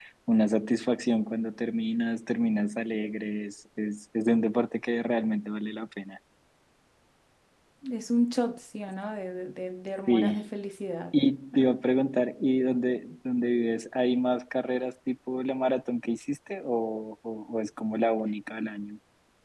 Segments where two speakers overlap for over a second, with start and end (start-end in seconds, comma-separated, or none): none